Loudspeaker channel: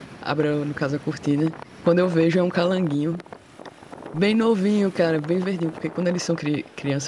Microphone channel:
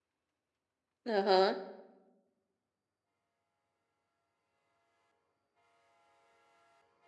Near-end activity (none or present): present